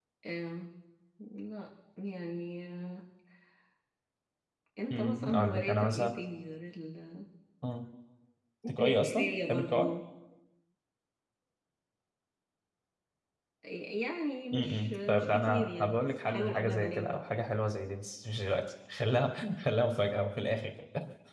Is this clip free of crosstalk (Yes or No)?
No